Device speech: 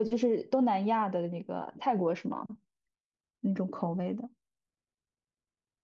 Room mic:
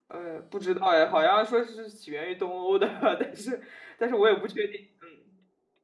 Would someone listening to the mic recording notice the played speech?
No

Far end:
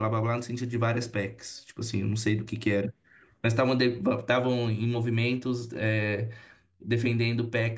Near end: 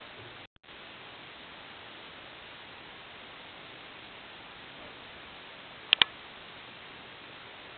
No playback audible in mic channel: Yes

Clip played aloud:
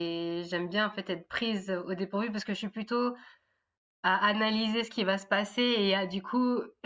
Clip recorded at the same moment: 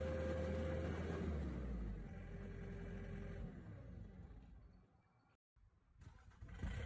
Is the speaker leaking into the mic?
No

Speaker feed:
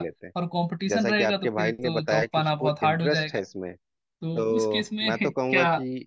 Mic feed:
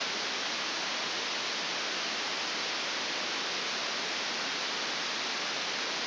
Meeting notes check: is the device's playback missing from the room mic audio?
Yes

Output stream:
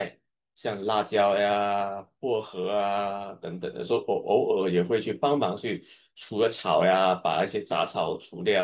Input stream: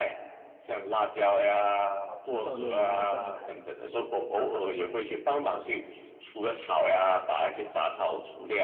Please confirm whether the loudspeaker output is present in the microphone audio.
Yes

